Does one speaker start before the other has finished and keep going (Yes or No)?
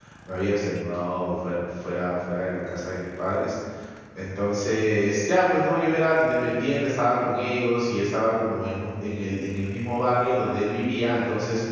No